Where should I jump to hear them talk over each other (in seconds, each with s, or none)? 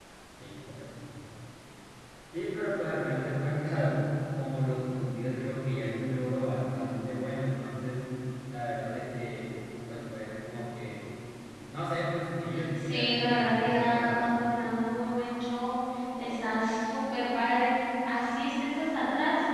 12.8 s